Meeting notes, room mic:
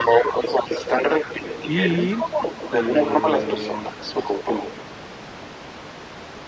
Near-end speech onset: 1.6 s

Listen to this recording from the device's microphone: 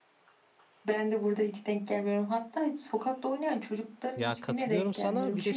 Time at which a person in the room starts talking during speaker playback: 4.1 s

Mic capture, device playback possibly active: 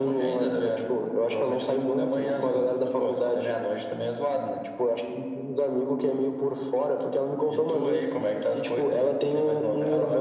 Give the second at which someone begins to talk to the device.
none

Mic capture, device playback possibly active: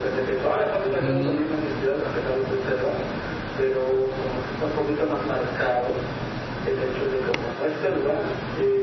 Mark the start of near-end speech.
1.0 s

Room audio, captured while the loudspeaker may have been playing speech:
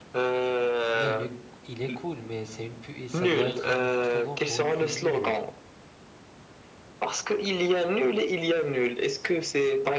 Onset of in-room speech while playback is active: 0.9 s

